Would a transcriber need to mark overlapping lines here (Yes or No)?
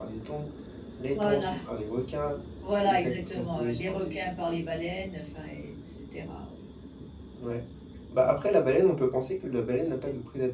Yes